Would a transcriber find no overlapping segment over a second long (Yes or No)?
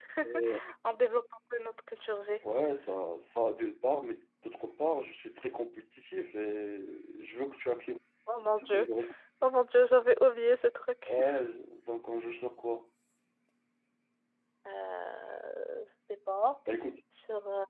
Yes